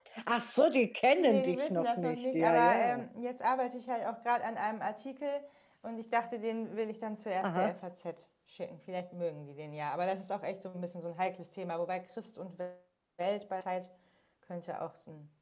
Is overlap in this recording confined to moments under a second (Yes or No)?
No